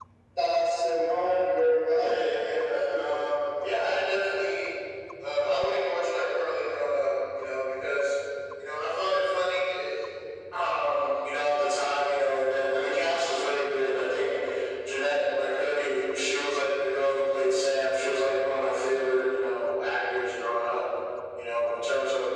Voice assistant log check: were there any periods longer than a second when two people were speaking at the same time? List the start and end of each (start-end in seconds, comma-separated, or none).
1.9-3.2